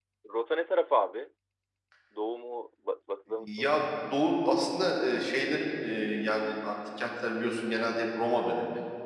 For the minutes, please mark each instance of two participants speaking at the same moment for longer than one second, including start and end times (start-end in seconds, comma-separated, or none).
none